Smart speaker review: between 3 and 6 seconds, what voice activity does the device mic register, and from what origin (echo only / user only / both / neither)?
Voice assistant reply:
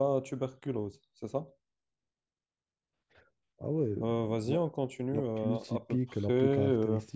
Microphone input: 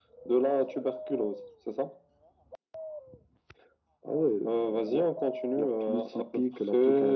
echo only